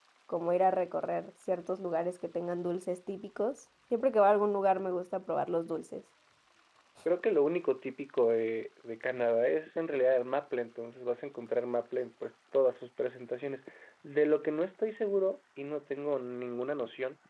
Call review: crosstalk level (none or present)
none